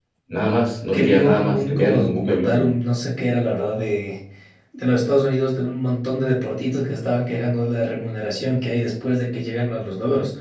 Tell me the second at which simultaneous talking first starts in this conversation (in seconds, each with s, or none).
0.9 s